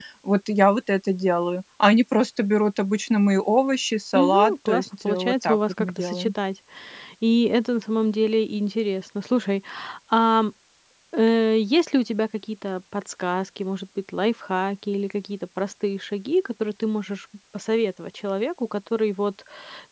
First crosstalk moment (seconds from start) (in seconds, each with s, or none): 4.1 s